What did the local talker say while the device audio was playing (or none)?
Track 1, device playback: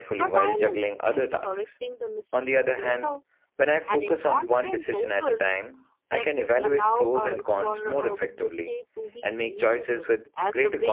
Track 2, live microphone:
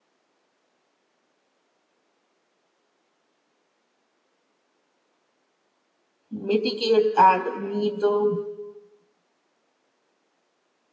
mitigate and meet the